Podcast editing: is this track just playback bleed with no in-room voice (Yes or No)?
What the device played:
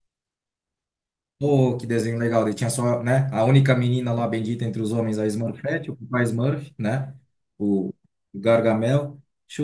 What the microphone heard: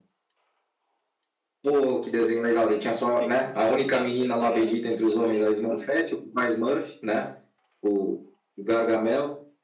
No